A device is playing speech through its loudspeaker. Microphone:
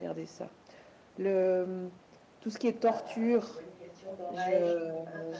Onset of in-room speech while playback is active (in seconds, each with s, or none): 2.9 s